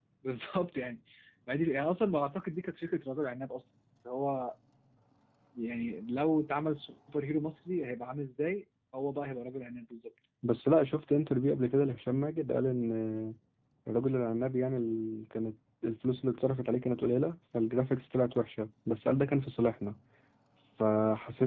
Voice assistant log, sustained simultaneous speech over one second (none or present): none